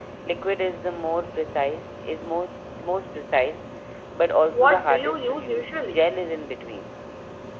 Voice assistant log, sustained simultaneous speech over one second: present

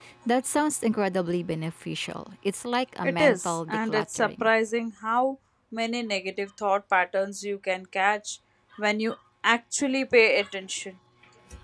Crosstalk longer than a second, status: present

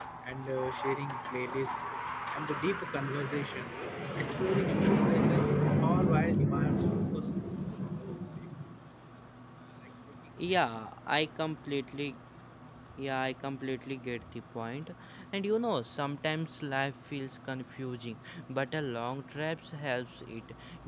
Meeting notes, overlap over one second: none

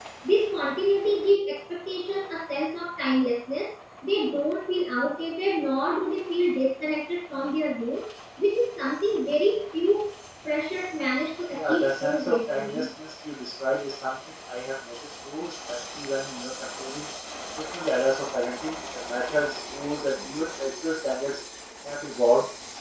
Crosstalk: present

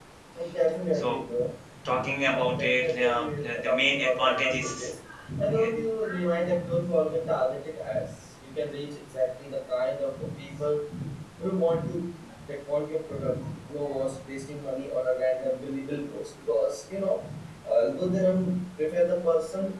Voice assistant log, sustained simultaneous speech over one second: present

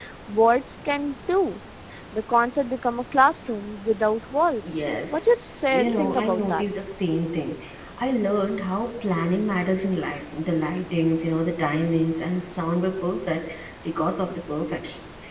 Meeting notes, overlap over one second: present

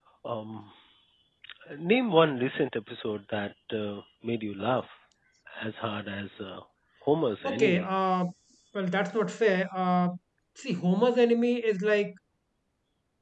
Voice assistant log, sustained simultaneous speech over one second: none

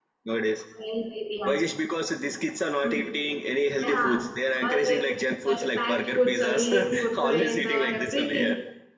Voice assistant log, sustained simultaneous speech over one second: present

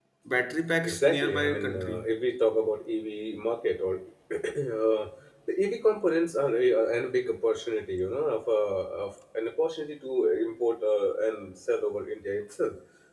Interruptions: present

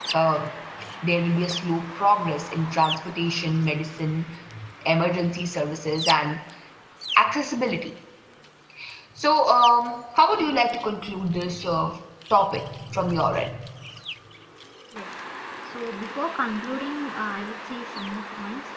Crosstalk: none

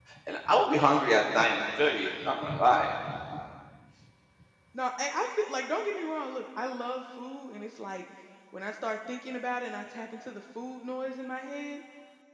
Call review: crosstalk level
none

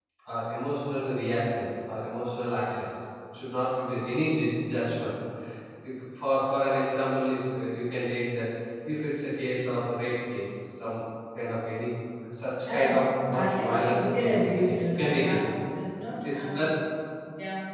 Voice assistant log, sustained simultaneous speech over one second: present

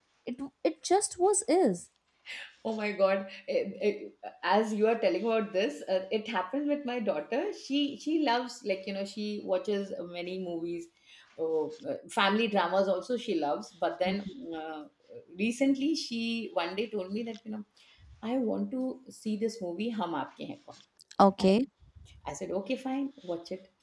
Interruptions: none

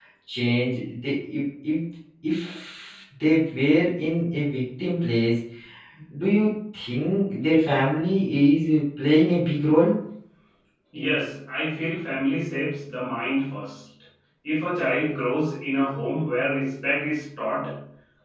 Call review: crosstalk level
none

